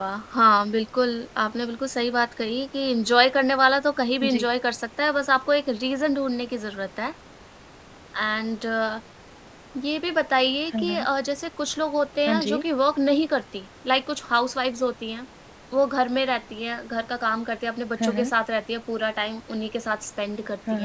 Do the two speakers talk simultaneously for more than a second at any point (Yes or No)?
No